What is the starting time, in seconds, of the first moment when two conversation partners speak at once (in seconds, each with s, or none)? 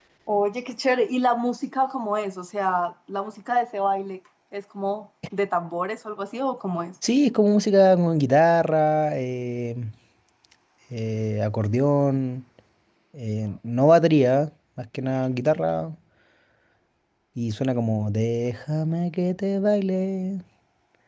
none